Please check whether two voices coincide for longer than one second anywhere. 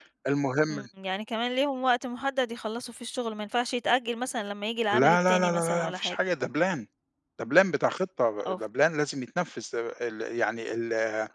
Yes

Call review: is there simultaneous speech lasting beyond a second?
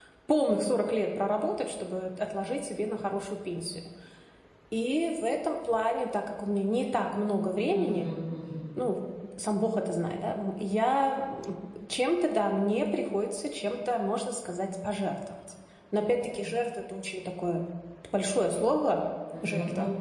No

